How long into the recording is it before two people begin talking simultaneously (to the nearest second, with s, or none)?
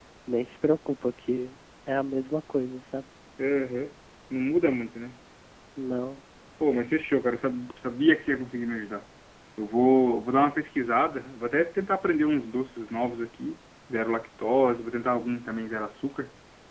none